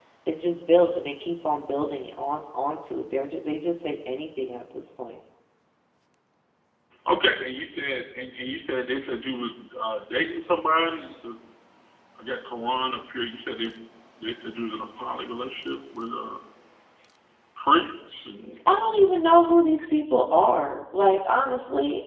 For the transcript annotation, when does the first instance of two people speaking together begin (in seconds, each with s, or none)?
none